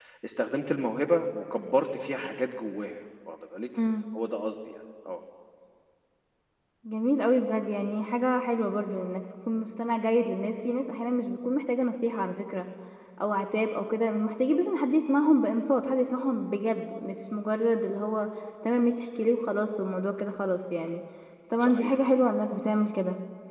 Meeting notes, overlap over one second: none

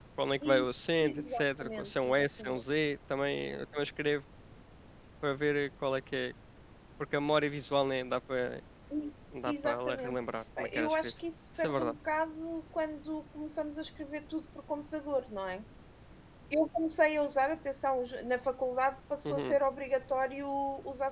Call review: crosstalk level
present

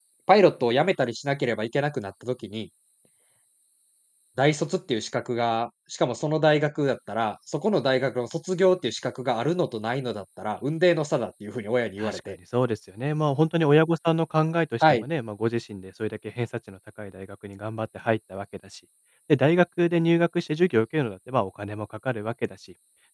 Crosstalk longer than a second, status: none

